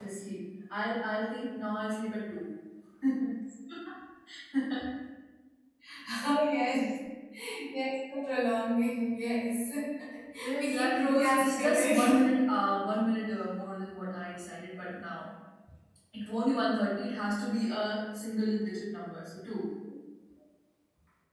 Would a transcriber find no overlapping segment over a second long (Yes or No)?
No